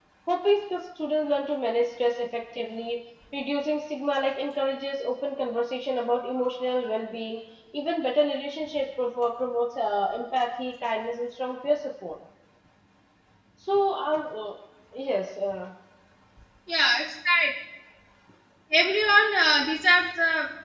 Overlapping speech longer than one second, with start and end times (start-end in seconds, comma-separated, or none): none